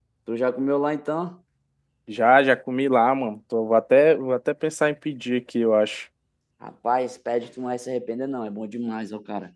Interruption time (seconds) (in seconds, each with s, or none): none